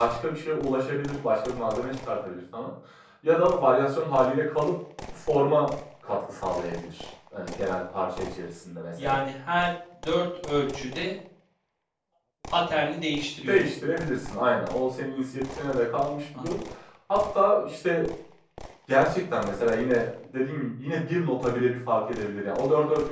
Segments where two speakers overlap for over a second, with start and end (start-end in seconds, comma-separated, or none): none